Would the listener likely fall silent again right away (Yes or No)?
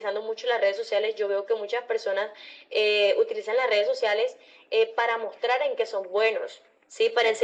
Yes